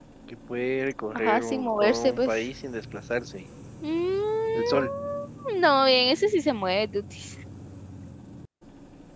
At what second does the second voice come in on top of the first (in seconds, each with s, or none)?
1.2 s